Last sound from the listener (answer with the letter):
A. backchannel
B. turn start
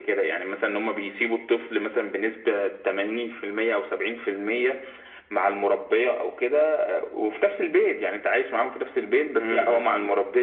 A